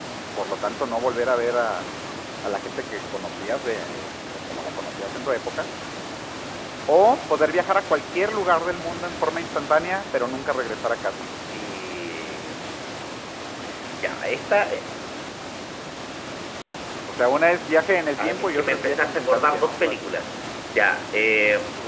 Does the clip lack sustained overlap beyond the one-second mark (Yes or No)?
No